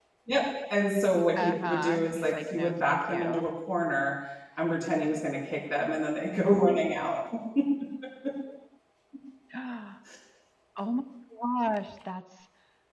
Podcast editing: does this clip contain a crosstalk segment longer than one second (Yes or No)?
Yes